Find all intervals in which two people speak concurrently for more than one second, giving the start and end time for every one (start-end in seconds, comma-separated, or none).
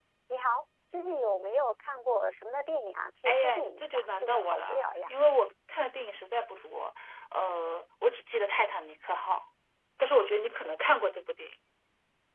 3.2-5.1